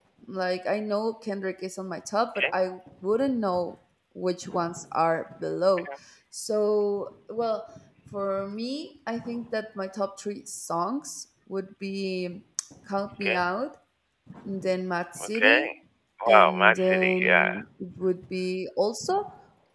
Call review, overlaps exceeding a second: present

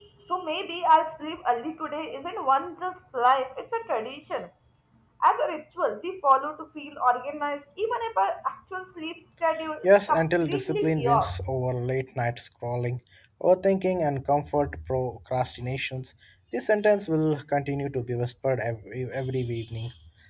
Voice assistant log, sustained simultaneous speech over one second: present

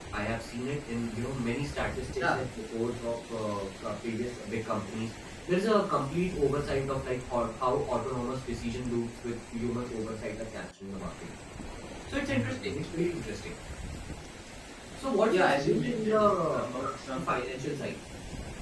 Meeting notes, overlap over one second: present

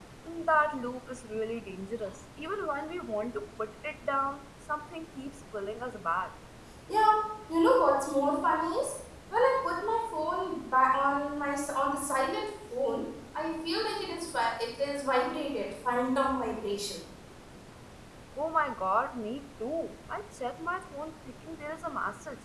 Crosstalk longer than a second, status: none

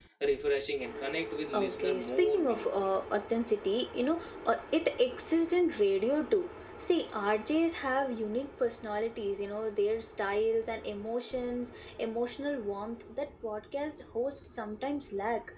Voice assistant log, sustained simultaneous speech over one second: present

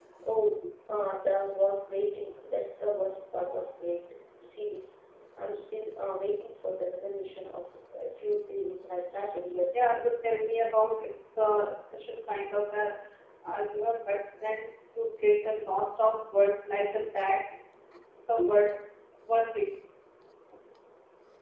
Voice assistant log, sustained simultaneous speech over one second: none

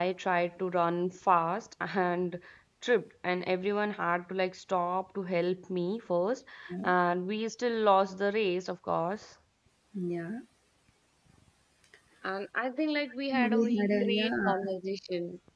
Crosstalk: present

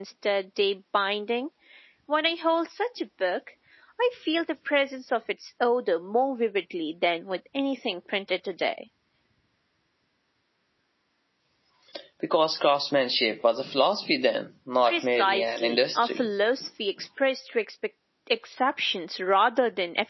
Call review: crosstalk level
present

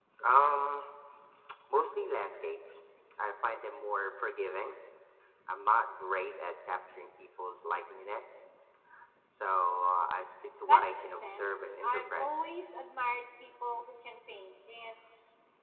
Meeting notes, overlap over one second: present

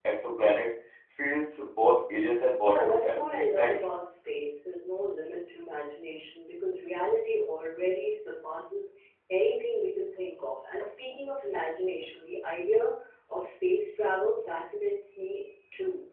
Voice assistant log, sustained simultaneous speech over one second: present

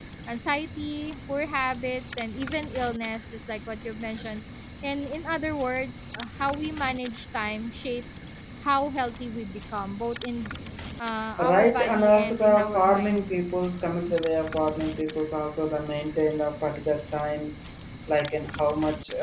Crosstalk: present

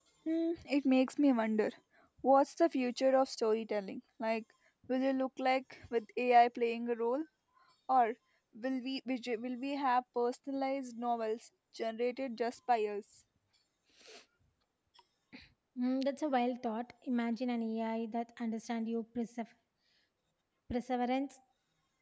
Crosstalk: none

